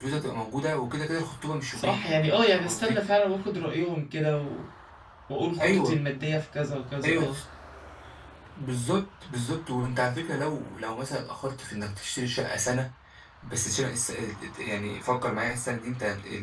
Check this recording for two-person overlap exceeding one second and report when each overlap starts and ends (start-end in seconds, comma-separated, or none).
1.7-3.0